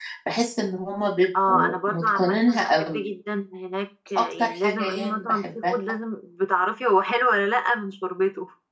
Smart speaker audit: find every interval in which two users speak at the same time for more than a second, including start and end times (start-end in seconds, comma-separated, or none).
1.4-3.1, 4.2-5.7